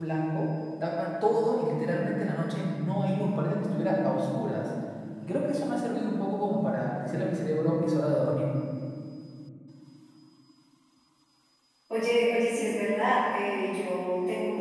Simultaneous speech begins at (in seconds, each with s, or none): none